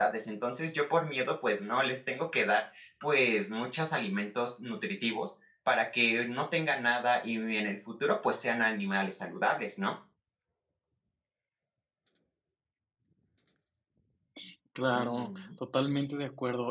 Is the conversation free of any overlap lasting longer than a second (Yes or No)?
Yes